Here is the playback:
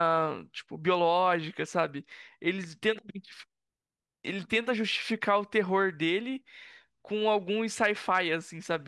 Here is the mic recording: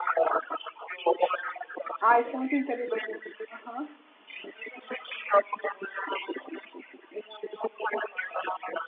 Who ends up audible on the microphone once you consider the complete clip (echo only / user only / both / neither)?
both